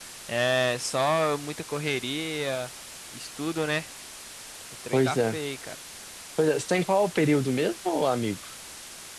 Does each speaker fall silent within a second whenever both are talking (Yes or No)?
Yes